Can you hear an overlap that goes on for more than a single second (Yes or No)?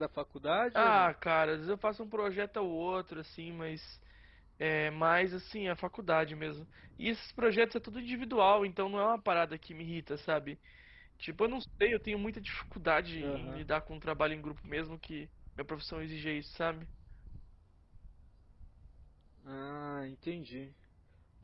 No